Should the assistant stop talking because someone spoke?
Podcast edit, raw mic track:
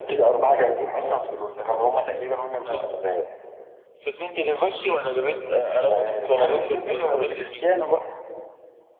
No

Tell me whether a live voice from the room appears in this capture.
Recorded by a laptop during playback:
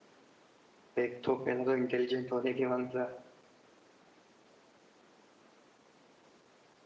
Yes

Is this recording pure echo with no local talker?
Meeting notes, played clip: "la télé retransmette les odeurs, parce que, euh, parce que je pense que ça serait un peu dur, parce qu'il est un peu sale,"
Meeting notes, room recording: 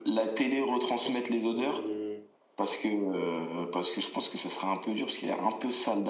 No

